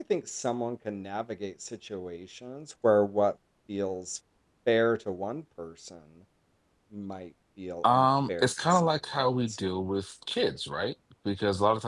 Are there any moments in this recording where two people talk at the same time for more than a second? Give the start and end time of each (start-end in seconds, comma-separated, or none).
7.9-9.6